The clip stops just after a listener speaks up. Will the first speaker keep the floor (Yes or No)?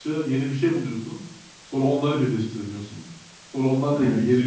Yes